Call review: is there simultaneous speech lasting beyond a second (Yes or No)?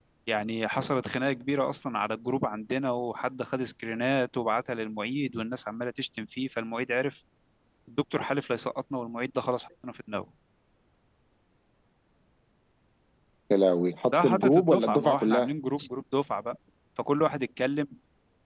Yes